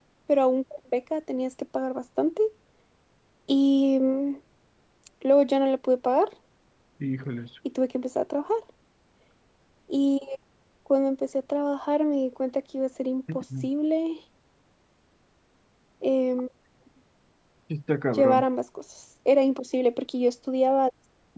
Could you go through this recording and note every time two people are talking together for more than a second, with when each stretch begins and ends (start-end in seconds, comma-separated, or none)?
none